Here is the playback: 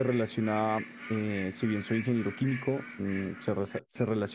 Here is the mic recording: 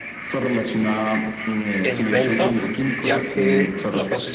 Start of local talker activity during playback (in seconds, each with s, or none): 1.8 s